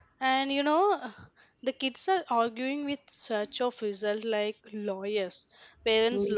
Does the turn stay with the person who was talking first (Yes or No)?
Yes